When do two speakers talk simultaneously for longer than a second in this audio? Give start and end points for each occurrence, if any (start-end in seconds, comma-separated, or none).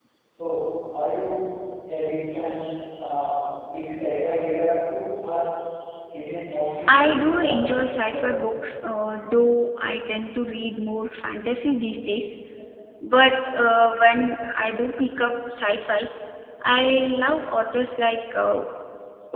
6.9-8.4